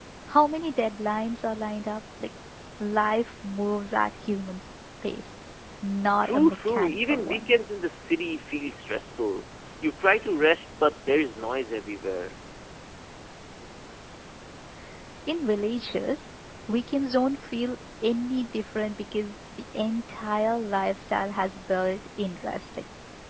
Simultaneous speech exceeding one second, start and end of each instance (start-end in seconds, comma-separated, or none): 6.2-7.5